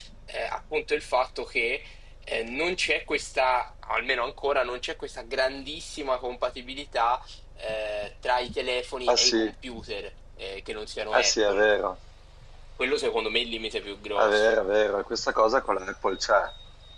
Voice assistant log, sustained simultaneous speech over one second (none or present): none